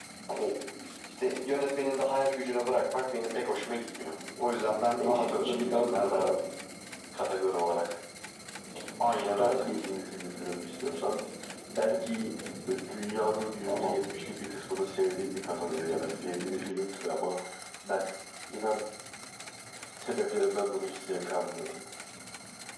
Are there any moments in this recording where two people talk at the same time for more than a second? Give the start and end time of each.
4.9-6.4

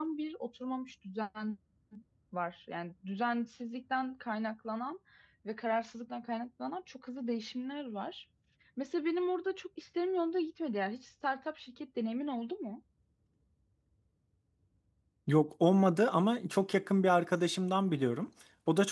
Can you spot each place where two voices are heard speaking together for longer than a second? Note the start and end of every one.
none

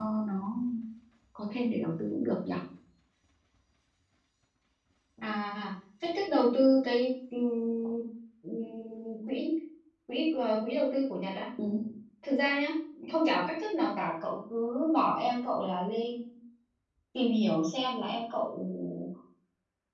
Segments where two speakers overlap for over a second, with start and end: none

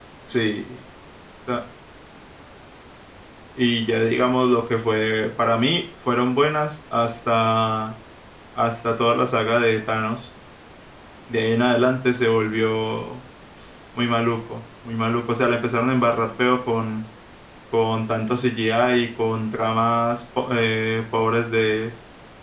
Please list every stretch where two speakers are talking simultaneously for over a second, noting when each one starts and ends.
none

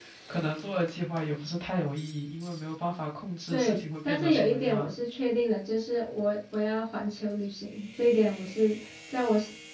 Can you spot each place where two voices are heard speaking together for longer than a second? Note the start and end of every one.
3.5-4.9

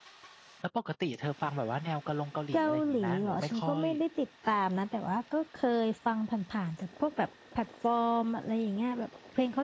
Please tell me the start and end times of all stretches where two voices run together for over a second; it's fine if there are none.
2.5-3.8

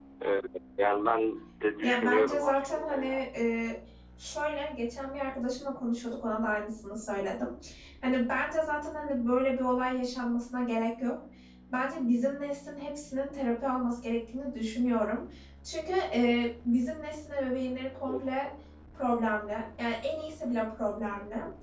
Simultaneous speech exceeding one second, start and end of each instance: 1.8-3.3

